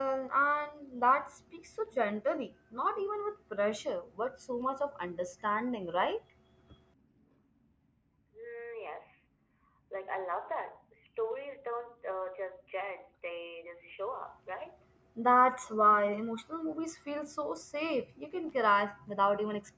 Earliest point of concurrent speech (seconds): none

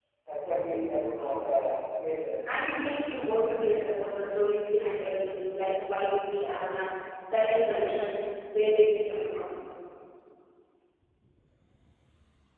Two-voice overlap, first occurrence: none

